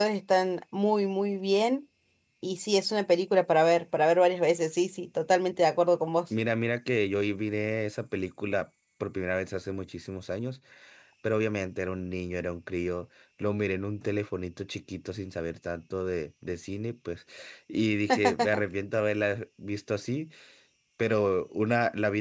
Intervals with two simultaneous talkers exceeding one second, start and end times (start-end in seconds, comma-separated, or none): none